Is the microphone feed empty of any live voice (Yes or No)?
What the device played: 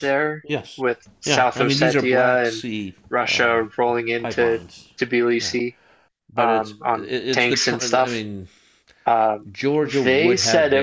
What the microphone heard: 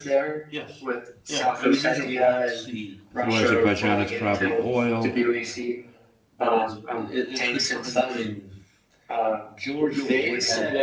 No